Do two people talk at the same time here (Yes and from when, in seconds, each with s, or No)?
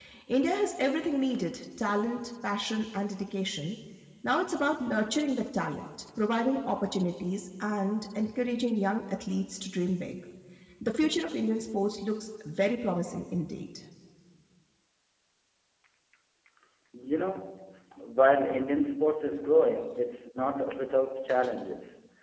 No